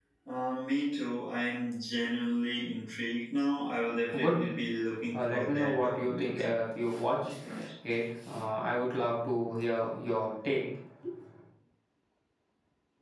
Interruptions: present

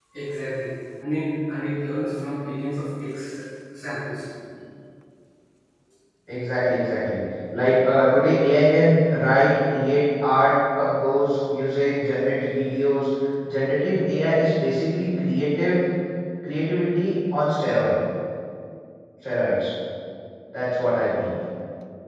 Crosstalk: none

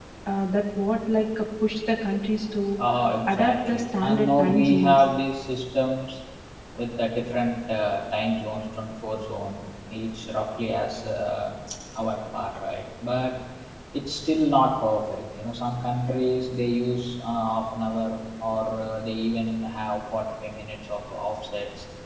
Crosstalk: present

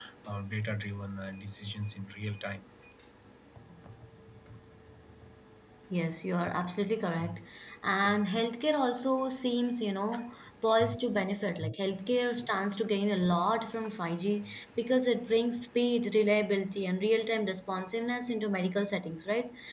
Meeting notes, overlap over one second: none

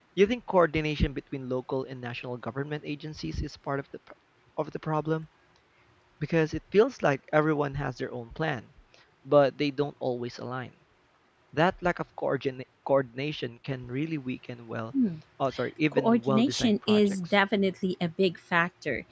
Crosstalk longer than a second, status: present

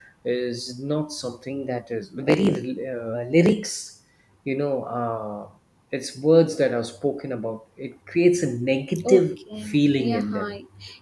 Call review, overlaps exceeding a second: present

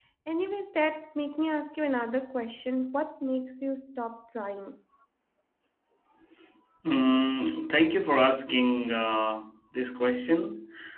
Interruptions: none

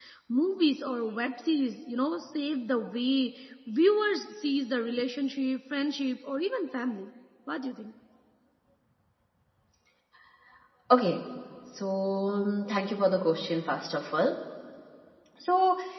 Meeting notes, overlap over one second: none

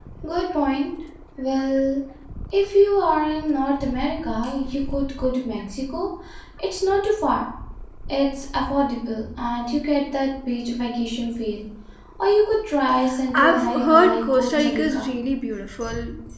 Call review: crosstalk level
present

